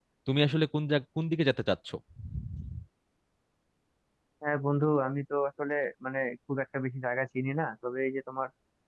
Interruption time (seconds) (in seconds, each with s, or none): none